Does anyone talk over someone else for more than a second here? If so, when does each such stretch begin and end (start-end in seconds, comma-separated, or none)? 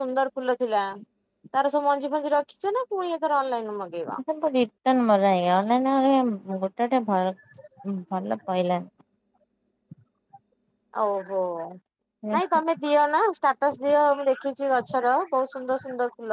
none